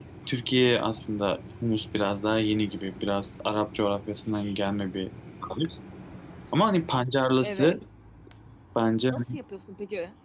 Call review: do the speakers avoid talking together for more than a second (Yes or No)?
Yes